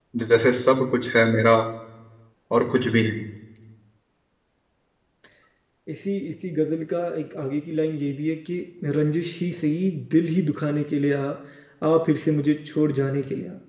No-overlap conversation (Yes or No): Yes